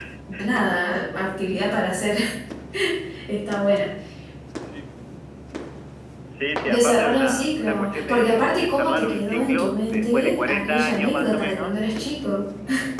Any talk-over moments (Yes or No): Yes